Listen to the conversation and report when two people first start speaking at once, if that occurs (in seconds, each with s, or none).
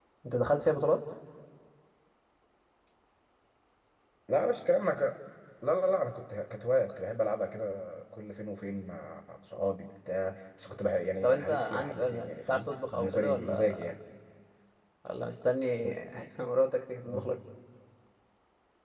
11.2 s